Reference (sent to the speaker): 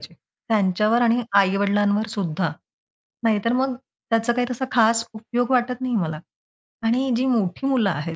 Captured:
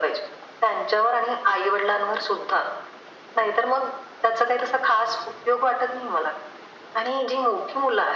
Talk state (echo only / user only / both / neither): echo only